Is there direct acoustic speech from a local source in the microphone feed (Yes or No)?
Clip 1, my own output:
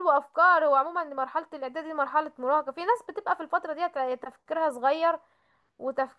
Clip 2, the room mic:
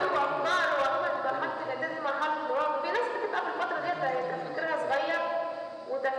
Yes